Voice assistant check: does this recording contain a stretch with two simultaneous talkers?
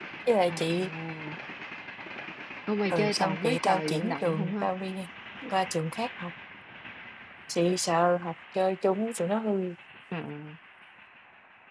Yes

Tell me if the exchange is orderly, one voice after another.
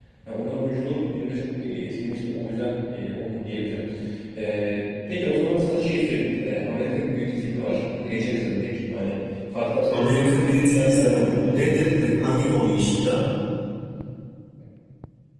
No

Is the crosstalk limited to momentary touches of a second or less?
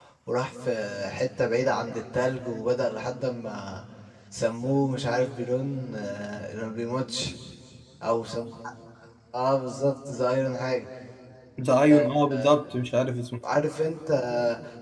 Yes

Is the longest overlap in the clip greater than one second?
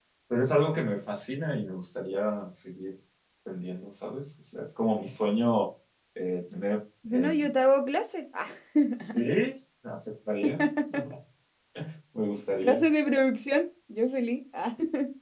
No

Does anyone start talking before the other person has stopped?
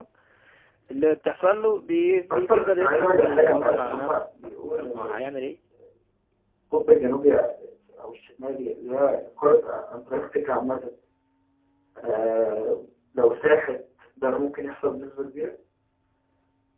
Yes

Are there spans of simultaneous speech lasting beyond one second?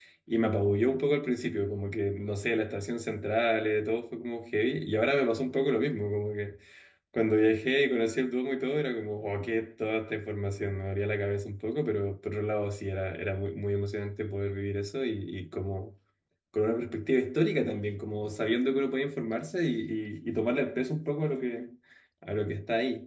No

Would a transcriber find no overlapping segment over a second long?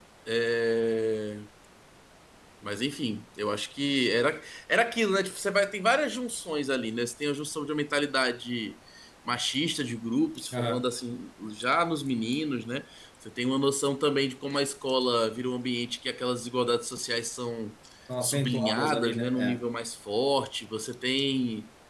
No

